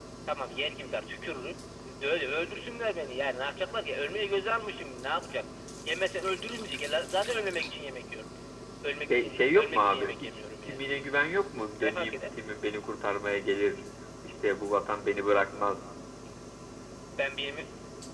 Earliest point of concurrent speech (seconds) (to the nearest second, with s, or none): 9 s